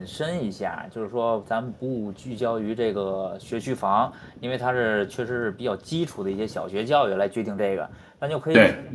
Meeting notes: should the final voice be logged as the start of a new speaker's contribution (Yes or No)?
No